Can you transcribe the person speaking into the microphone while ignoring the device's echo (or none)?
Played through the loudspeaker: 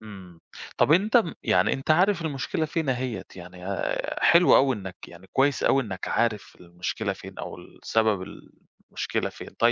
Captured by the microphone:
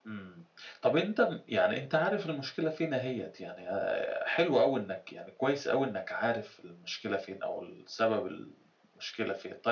none